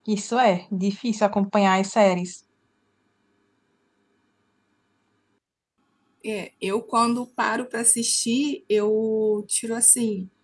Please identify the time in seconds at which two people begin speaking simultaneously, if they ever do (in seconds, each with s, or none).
none